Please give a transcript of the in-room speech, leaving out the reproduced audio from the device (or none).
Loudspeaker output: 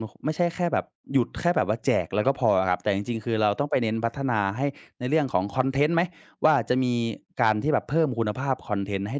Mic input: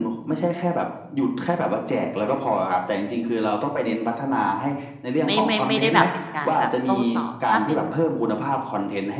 ไม่ไม่ไม่ได้แบบเป็นการแบบโต้ตอบถ้าเป็น